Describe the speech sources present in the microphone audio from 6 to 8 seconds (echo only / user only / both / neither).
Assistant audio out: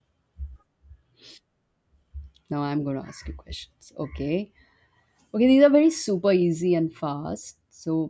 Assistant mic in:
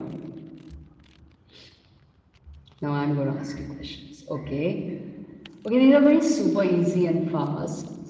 echo only